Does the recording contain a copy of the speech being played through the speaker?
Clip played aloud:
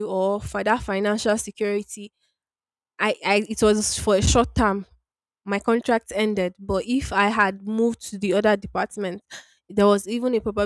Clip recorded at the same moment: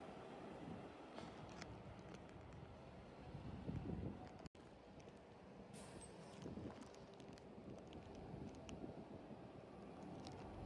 No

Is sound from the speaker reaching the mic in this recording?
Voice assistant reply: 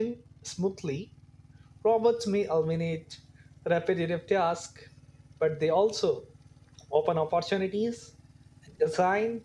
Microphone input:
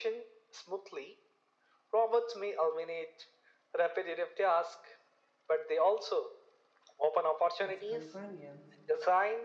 Yes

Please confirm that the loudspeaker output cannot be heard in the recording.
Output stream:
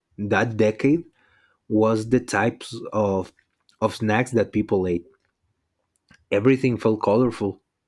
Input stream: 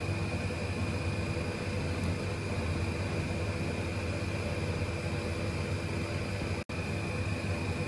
Yes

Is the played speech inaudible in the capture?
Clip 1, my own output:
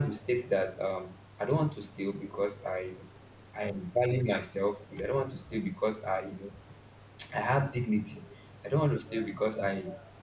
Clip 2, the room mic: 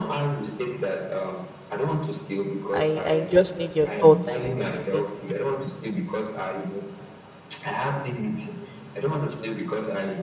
No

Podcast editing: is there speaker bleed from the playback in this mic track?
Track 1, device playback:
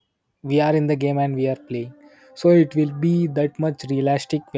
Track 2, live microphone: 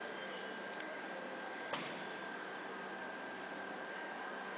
No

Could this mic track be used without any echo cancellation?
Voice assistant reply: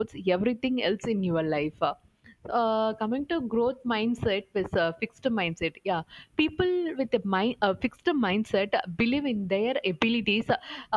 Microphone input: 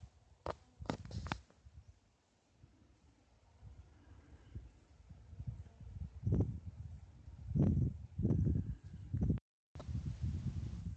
Yes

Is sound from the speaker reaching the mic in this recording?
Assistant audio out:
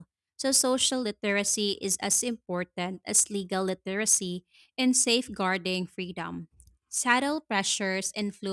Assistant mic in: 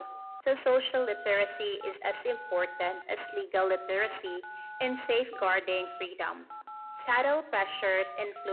Yes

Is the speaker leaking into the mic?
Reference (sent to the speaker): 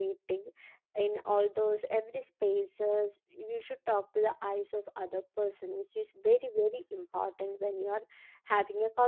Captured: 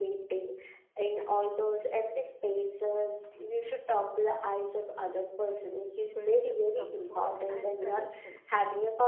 Yes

